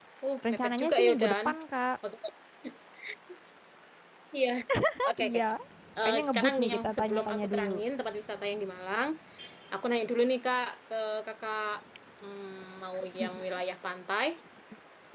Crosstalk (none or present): present